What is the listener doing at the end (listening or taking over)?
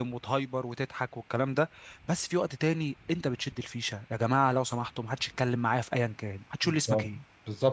taking over